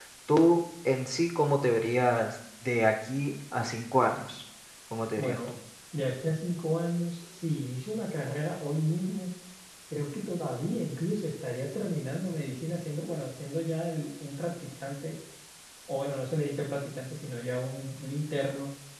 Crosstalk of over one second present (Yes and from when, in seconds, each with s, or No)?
No